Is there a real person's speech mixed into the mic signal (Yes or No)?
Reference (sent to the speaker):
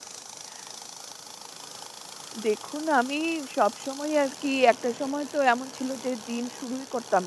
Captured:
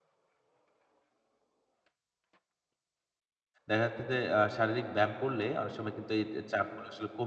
Yes